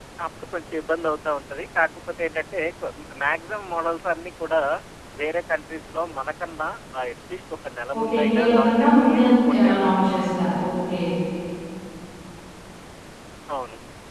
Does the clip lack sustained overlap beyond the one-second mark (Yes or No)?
No